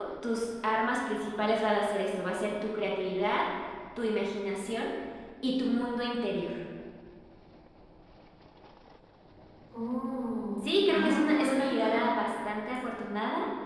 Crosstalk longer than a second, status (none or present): present